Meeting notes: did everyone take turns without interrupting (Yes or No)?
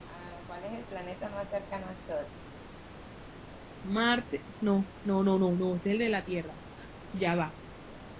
Yes